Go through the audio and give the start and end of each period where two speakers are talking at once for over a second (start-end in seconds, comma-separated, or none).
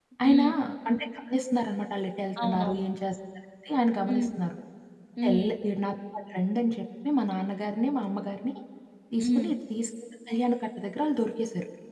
none